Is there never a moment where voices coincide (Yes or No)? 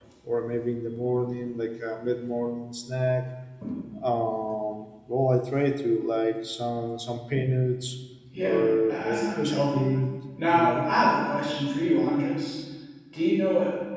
No